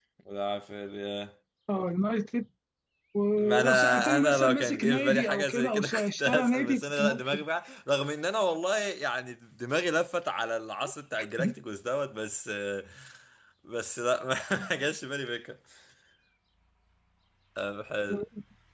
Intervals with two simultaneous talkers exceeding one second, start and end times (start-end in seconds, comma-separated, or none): 3.4-7.4